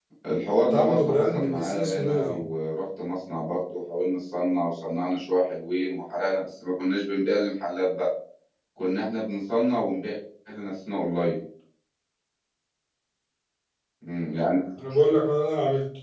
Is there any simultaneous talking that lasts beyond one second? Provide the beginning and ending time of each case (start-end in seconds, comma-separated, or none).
0.6-2.4